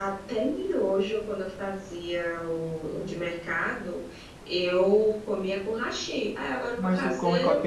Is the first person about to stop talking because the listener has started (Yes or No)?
Yes